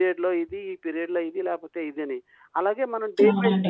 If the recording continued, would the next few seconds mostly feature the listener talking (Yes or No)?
No